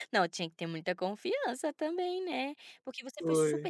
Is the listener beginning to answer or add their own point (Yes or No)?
No